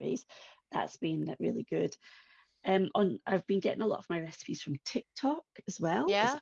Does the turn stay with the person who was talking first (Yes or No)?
Yes